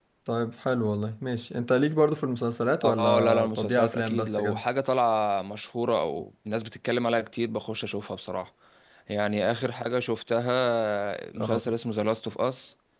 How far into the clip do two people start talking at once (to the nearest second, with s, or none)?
3 s